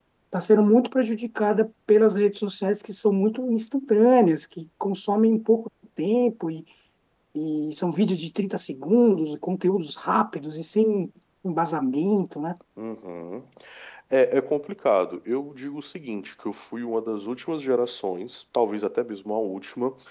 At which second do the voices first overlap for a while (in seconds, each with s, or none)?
none